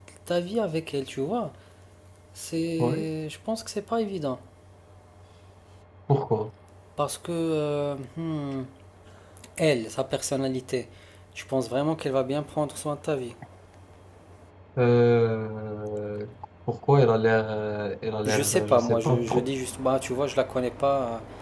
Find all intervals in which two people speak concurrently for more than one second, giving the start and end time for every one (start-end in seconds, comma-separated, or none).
18.2-19.5